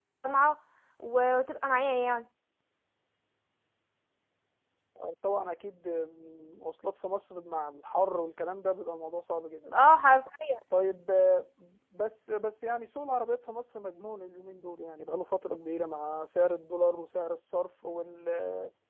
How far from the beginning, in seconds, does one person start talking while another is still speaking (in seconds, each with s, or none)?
none